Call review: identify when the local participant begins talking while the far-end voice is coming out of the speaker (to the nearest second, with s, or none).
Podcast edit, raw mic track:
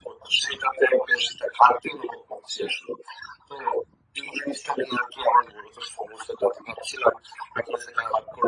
none